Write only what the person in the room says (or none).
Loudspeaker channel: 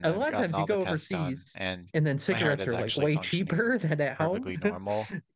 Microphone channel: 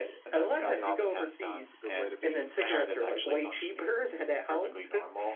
Yeah, it's a good way to be.